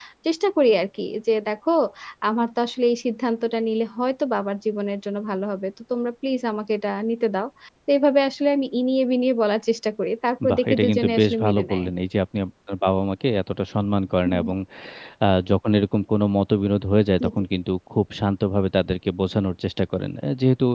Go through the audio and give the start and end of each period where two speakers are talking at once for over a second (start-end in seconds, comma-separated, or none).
10.5-11.9